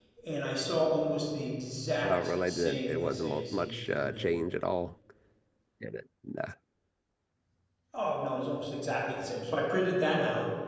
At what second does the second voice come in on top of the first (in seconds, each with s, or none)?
2.0 s